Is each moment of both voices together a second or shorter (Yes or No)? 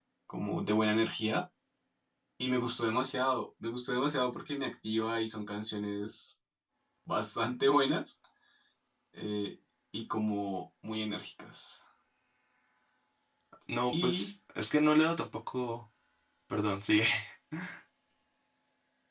Yes